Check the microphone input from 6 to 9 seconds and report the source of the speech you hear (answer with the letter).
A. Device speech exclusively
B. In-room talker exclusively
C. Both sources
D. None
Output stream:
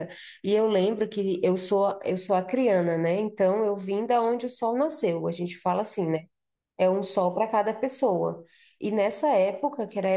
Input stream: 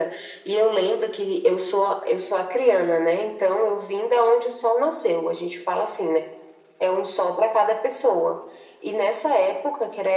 A